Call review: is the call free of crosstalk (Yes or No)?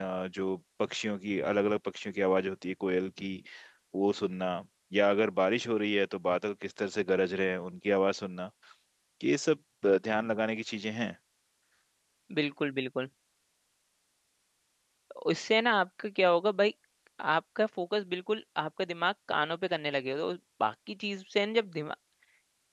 Yes